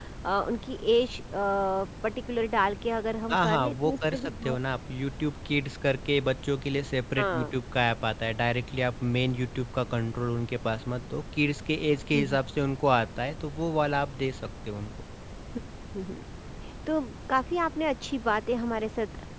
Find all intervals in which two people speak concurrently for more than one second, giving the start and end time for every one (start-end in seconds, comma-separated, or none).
3.3-4.6